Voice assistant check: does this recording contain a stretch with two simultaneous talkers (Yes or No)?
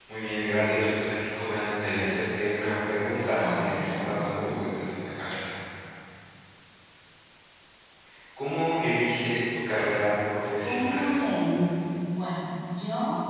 Yes